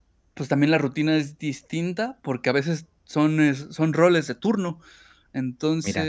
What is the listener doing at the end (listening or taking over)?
listening